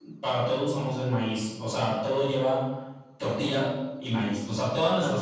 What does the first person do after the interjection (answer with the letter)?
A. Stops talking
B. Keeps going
B